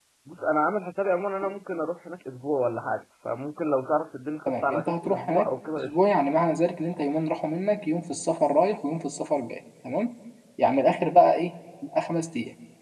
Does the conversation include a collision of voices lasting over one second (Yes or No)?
Yes